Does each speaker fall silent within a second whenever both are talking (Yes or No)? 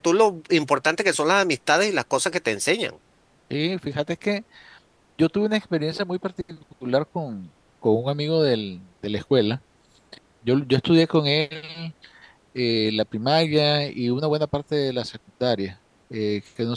Yes